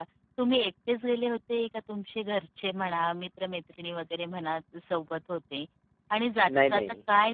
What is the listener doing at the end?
listening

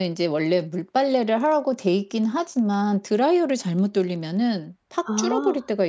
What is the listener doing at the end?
listening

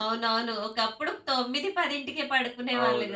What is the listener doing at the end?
taking over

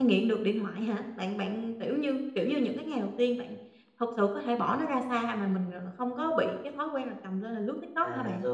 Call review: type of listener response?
taking over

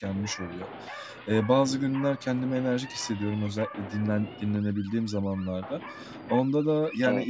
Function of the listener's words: listening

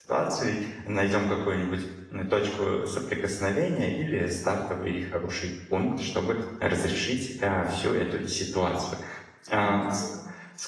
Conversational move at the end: listening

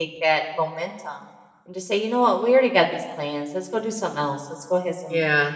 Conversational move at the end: listening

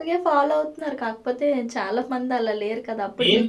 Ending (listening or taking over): listening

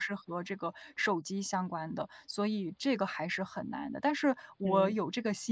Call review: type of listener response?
listening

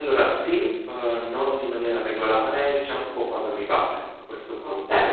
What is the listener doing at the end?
taking over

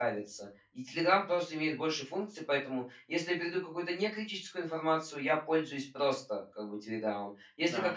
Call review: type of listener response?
listening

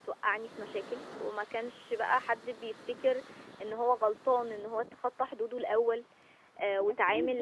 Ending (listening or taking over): taking over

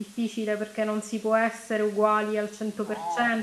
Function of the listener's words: listening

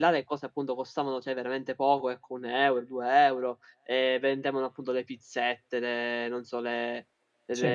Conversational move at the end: listening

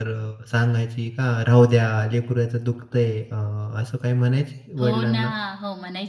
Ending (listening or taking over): taking over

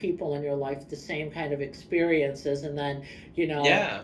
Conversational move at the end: listening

